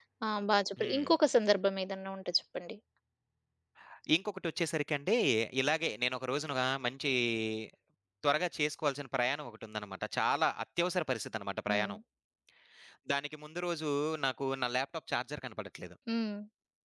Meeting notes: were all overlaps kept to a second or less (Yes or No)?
Yes